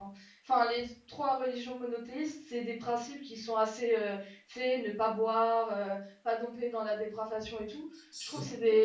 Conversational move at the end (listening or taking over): listening